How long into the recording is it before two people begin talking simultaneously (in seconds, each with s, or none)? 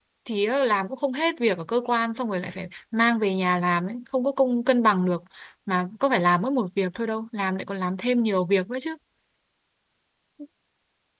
none